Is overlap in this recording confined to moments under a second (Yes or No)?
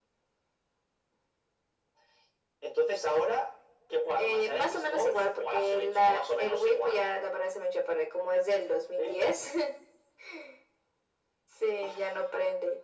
No